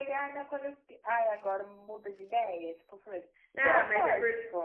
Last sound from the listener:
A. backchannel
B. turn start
B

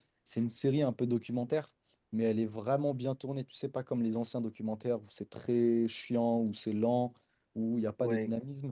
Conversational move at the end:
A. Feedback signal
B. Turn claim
A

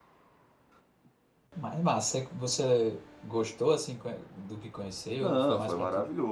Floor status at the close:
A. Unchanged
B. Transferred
B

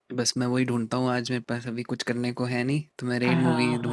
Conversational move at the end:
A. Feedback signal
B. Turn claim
B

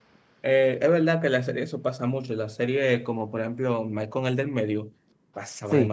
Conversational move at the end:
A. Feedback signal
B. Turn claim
B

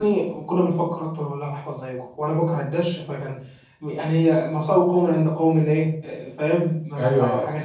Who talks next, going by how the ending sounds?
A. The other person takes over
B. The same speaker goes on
A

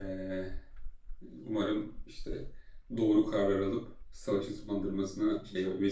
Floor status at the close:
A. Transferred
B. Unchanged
A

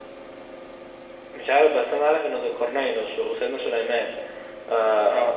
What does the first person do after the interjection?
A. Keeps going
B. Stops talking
A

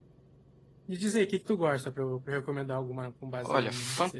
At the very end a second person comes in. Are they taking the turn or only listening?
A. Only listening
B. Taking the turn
B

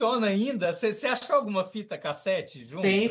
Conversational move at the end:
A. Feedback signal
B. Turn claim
B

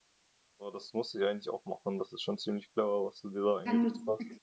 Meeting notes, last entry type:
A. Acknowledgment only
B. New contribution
B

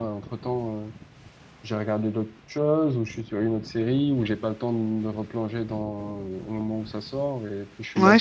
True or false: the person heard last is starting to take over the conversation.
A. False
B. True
B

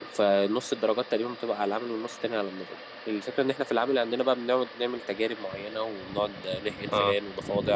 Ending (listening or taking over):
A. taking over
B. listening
B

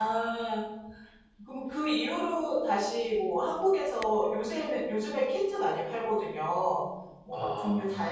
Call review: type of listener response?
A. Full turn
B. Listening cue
B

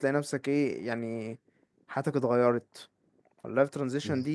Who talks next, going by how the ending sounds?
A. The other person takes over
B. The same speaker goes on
B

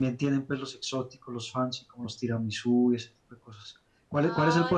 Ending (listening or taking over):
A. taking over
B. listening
B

